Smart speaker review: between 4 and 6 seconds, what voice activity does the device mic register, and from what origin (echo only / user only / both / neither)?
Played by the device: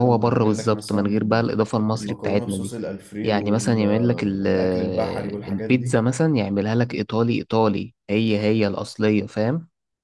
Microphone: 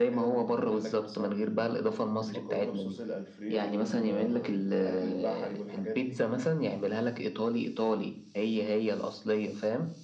echo only